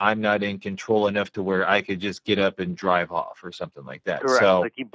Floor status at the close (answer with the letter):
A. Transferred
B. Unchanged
A